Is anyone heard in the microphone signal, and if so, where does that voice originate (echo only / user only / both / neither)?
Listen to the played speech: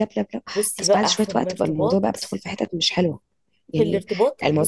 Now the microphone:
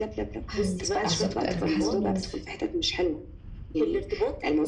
both